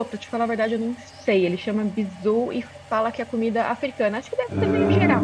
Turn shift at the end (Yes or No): No